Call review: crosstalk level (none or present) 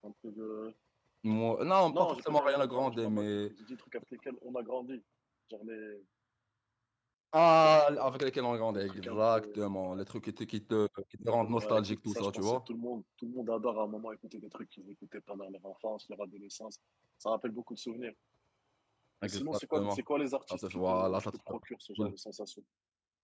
present